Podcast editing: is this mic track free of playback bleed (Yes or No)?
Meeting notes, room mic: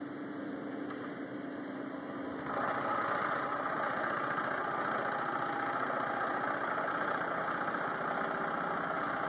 Yes